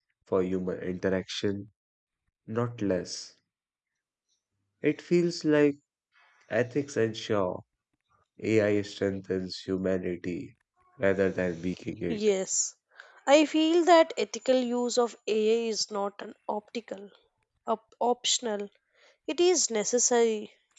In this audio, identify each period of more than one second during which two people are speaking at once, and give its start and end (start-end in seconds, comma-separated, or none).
none